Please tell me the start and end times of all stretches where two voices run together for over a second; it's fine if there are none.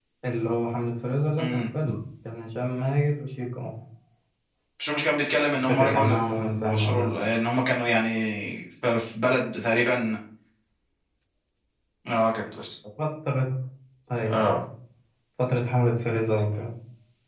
5.6-7.2

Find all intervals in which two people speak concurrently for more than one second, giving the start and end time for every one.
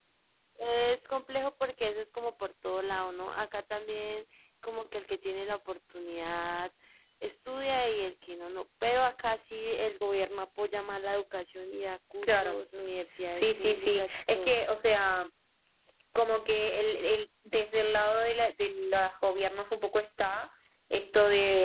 13.3-14.5

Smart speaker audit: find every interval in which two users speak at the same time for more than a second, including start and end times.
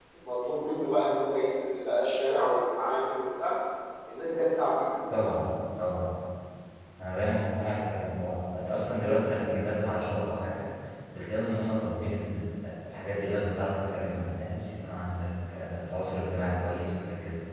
none

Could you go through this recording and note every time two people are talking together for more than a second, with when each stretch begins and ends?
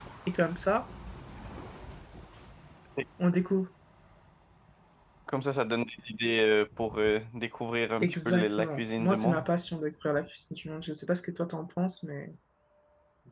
8.0-9.4

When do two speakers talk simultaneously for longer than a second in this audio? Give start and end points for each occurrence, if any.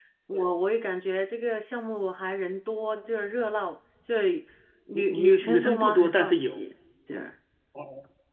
4.9-6.6

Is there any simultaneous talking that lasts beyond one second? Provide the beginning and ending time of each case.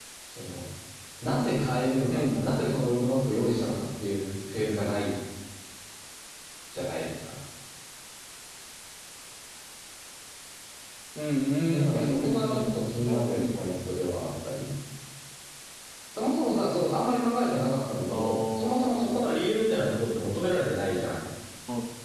11.7-13.6, 18.1-19.3

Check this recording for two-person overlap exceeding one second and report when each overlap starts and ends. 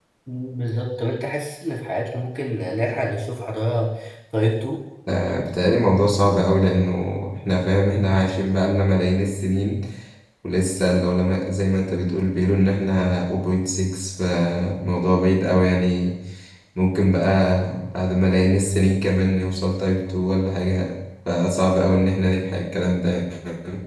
none

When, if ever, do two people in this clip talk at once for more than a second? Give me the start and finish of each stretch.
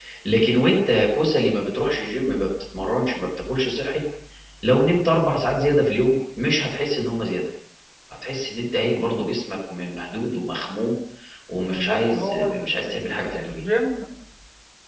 11.6-13.6

